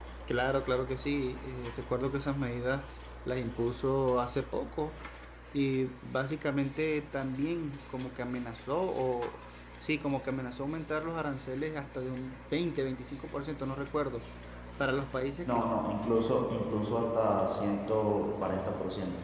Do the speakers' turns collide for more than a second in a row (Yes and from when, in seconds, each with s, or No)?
No